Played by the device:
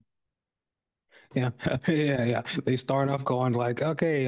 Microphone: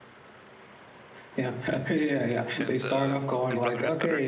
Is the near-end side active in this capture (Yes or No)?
Yes